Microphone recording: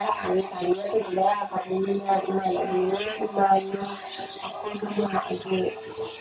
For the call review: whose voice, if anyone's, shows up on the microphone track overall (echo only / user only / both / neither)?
echo only